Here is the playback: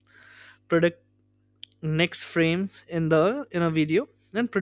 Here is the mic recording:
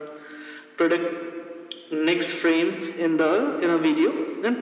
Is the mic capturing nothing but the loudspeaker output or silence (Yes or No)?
Yes